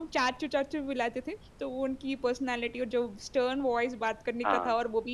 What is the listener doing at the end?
listening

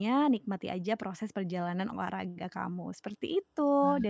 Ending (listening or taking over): listening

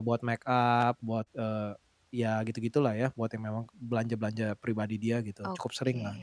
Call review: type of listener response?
taking over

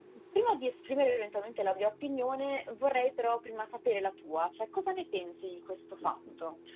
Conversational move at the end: taking over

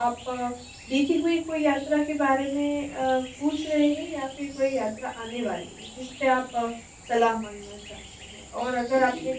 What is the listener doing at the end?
listening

